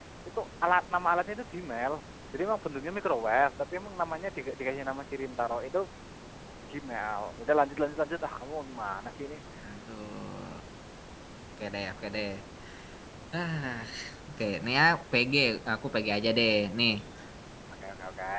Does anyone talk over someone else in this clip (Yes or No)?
No